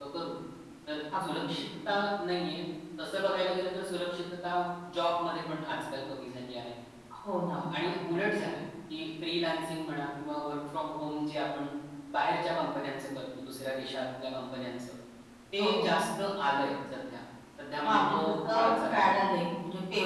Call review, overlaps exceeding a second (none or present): present